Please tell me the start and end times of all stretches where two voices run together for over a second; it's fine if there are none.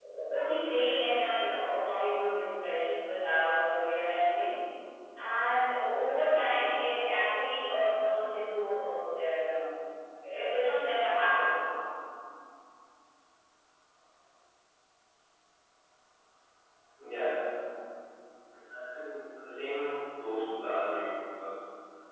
none

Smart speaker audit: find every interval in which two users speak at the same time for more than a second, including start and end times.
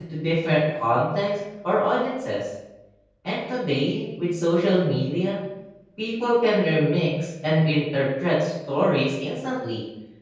none

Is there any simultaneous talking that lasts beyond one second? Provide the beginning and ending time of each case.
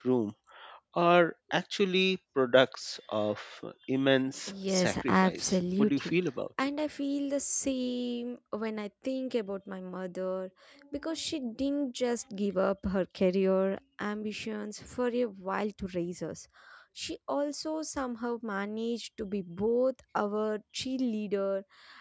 4.7-6.1

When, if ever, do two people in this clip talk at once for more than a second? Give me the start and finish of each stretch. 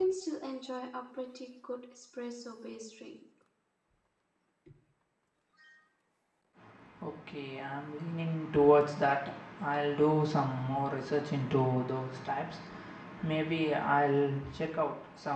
none

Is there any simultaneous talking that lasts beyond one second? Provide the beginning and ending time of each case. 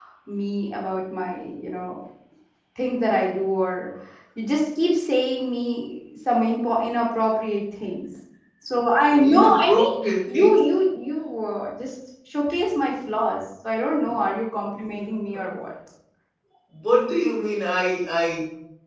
9.2-10.6

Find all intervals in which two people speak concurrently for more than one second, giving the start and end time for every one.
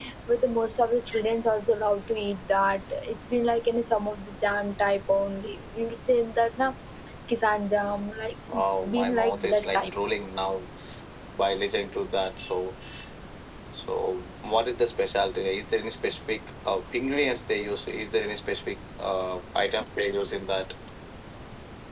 8.5-9.9

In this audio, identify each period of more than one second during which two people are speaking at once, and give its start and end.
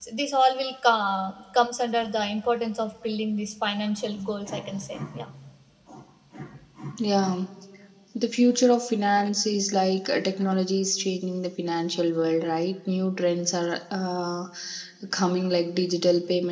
none

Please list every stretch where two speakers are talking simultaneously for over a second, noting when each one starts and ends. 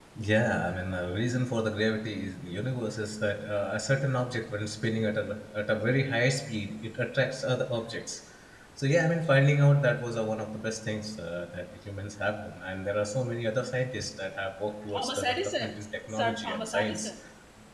14.9-17.1

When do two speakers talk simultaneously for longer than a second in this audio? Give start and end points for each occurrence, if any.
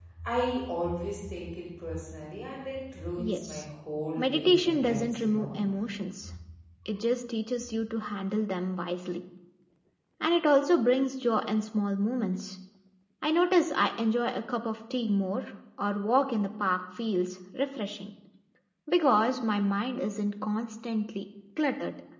4.2-5.6

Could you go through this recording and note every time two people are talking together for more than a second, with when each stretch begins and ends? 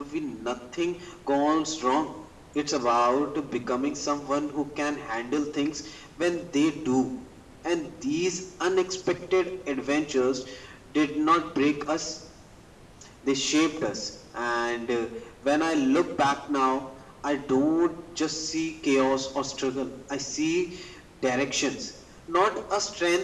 none

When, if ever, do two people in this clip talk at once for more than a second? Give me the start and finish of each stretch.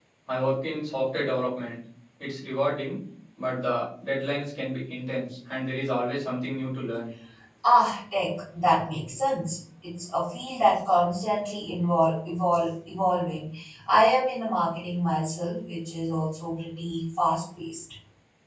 none

